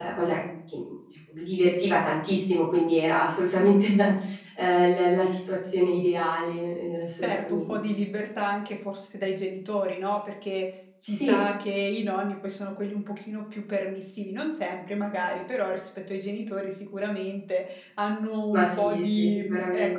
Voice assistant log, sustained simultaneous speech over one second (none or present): present